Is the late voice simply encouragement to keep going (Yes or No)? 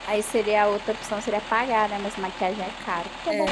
No